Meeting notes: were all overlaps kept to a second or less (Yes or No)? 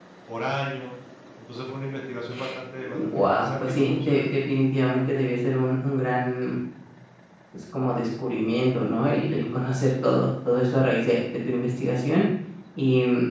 No